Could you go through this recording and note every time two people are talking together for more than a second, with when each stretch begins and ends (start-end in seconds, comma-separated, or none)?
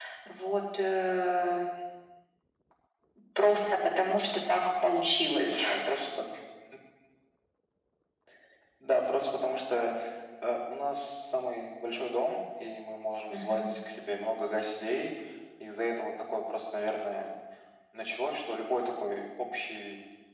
none